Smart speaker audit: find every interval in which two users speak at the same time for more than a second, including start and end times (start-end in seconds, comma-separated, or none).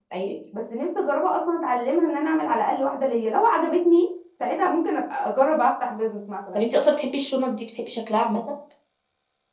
none